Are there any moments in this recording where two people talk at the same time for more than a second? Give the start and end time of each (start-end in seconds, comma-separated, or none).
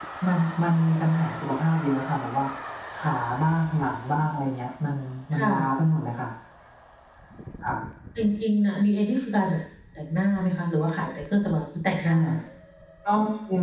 none